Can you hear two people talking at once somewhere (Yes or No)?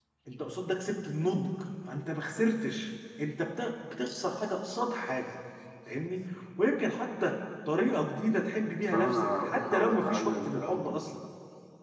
Yes